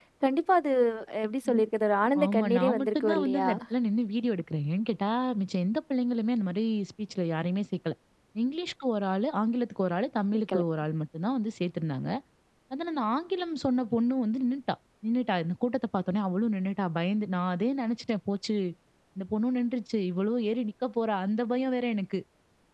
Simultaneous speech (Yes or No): Yes